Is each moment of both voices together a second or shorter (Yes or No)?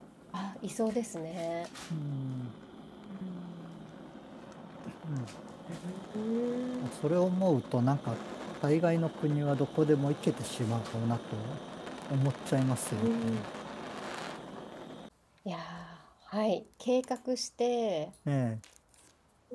Yes